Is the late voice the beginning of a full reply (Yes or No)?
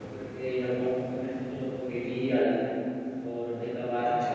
No